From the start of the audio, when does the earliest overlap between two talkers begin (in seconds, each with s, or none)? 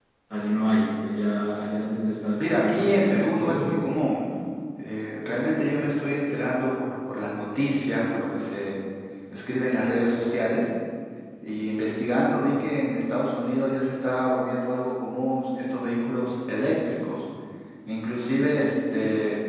2.4 s